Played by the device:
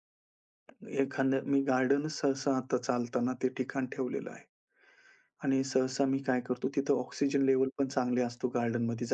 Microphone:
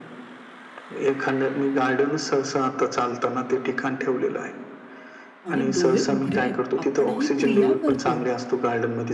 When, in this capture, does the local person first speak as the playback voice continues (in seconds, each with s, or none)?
5.5 s